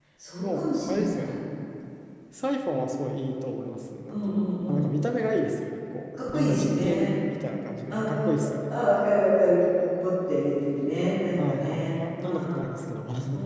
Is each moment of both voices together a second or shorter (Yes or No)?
No